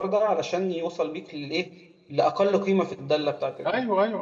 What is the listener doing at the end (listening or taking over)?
listening